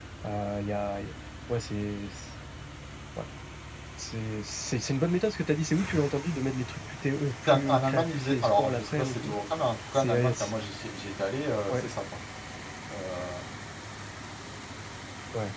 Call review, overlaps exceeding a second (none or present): present